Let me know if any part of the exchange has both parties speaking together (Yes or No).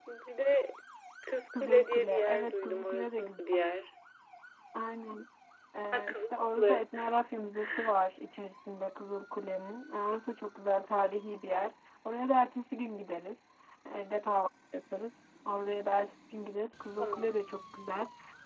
Yes